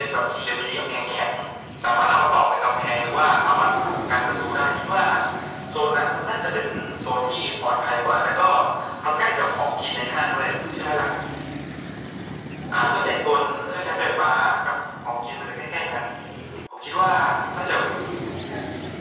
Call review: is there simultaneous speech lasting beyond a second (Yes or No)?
Yes